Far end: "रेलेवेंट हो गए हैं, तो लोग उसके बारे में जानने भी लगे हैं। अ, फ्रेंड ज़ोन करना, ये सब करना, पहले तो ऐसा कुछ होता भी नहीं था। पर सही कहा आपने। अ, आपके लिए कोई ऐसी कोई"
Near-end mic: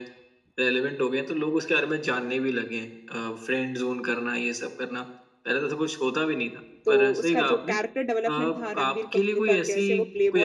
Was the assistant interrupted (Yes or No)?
Yes